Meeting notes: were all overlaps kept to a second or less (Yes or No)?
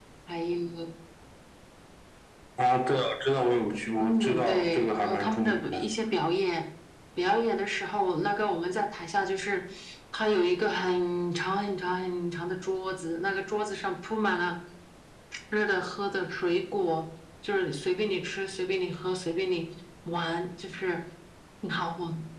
No